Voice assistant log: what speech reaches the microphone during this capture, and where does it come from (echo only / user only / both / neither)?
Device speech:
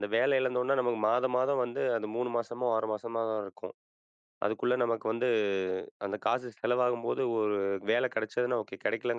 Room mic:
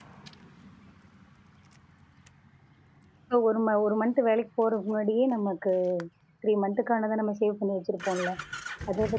user only